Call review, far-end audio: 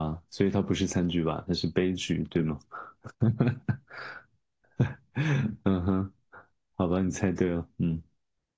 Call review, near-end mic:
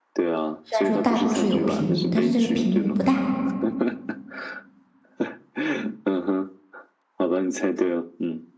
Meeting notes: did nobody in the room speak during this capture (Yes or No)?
No